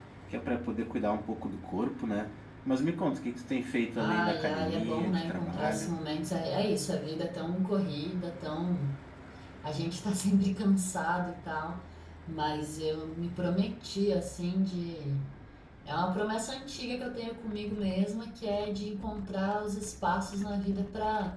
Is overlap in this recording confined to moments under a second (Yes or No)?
No